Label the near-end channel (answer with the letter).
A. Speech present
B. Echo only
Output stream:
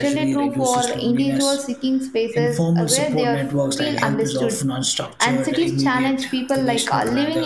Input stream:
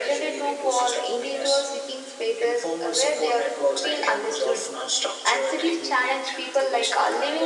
B